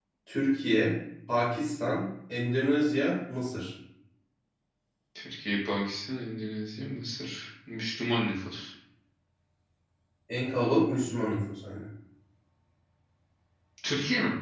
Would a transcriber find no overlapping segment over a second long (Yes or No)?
Yes